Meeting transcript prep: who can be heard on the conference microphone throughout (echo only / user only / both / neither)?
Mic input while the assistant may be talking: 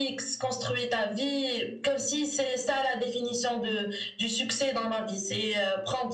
echo only